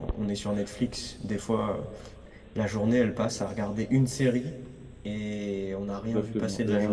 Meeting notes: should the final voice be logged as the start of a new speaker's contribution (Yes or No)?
Yes